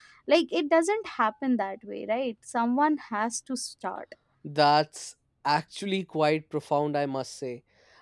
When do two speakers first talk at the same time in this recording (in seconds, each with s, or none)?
none